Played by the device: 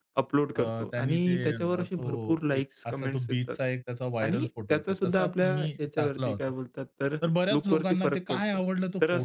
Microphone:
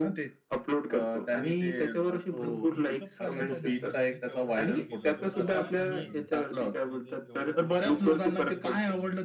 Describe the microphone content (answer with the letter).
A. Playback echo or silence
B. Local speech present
B